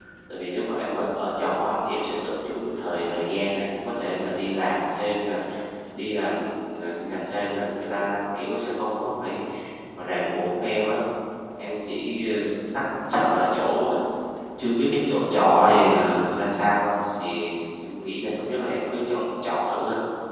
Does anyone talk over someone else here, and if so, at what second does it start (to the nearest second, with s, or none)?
none